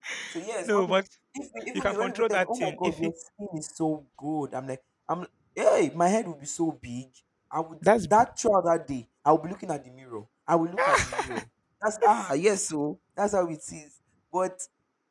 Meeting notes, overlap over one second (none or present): present